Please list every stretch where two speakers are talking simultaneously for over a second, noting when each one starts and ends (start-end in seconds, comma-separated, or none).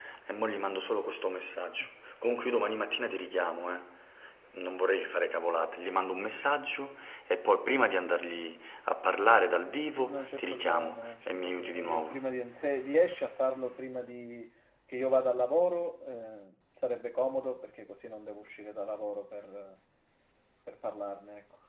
10.0-12.2